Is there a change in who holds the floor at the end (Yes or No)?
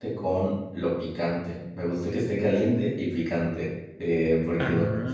No